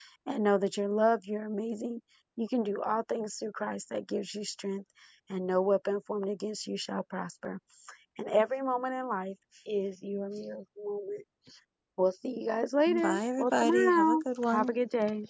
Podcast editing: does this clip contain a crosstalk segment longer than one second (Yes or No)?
Yes